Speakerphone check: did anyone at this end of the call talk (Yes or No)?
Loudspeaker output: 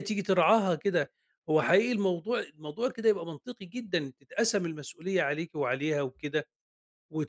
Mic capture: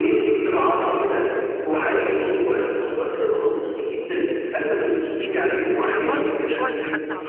Yes